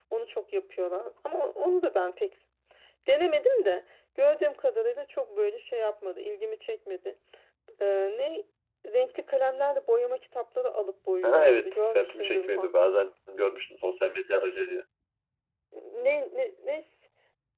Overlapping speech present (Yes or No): Yes